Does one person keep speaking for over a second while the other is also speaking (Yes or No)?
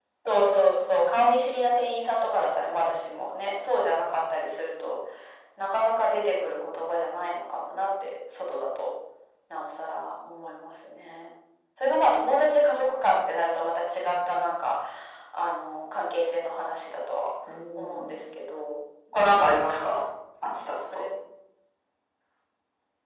No